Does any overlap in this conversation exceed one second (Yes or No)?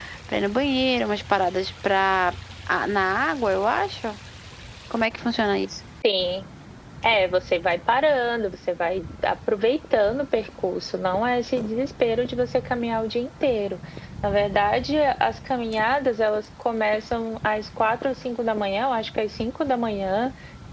No